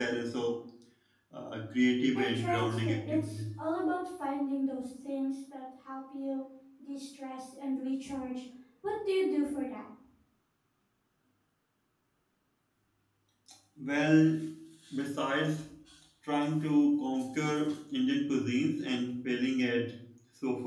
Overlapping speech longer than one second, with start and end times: 2.1-3.4

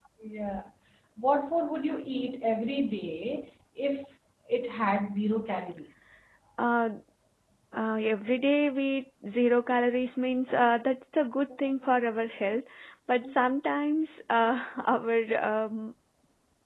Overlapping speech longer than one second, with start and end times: none

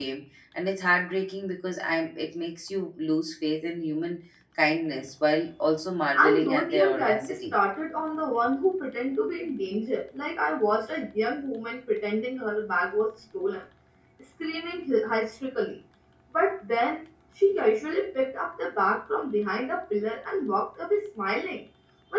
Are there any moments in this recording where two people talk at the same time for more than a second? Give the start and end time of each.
6.1-7.6

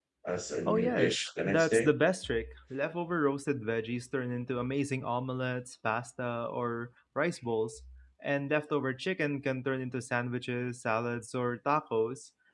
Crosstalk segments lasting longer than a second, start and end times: 0.7-1.9

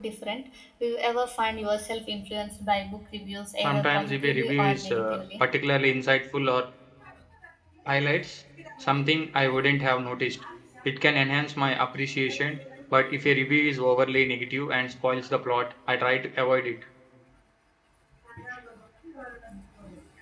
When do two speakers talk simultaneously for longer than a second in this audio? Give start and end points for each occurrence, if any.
3.6-5.4

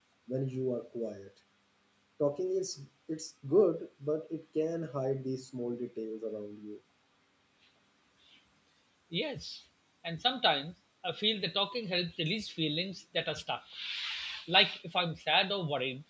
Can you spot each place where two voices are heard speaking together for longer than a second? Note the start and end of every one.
none

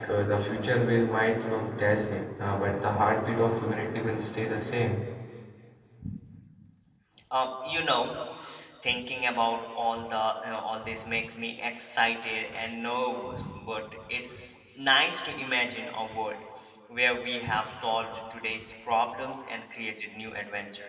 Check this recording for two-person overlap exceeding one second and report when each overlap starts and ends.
none

